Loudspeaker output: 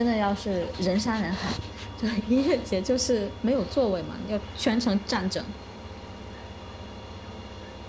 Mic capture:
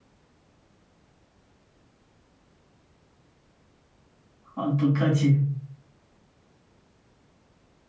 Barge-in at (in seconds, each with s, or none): 4.5 s